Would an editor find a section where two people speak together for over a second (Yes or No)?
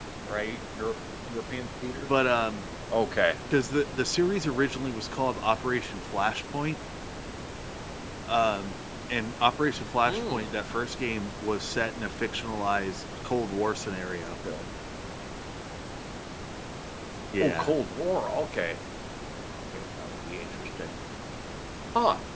No